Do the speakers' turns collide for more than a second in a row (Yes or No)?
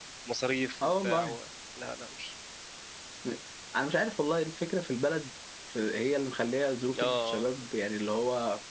No